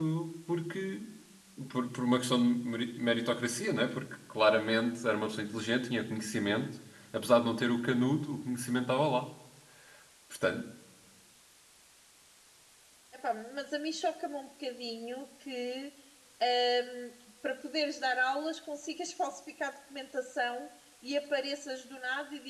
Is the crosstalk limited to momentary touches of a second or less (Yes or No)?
Yes